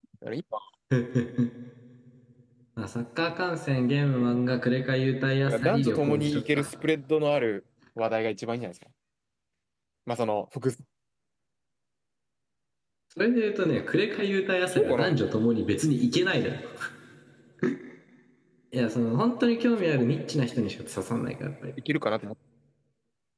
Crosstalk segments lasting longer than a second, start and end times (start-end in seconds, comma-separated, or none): 5.4-6.7